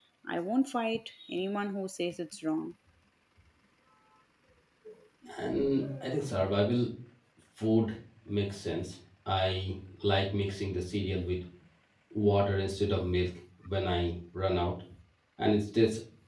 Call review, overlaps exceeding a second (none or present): none